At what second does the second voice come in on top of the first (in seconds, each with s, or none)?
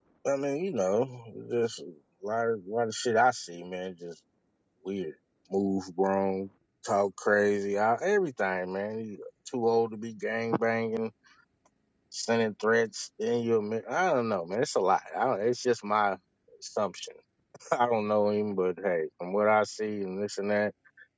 none